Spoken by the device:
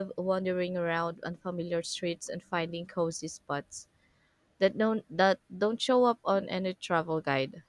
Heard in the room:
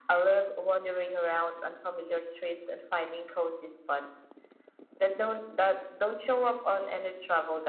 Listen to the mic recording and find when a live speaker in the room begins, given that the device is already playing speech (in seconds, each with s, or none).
none